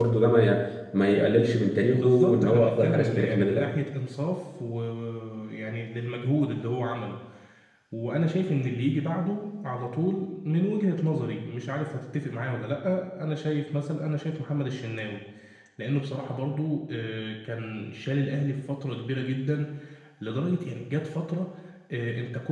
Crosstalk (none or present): present